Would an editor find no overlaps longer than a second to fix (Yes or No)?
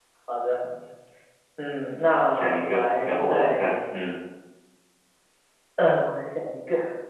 No